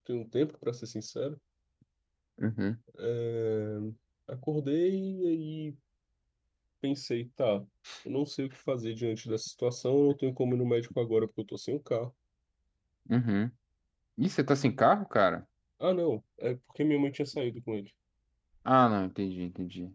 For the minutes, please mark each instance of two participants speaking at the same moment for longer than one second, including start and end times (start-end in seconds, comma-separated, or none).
none